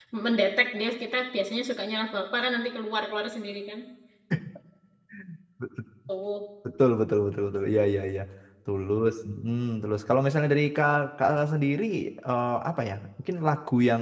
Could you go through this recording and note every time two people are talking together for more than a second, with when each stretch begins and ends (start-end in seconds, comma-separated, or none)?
none